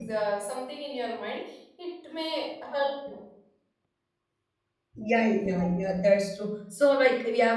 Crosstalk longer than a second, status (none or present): none